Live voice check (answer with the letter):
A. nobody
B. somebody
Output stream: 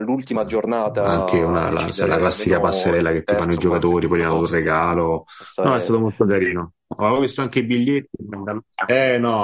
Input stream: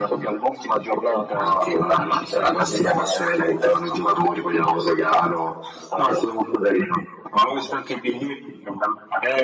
A